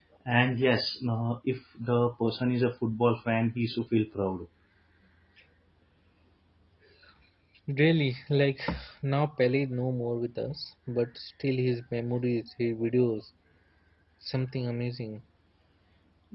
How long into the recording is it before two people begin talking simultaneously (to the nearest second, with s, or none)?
none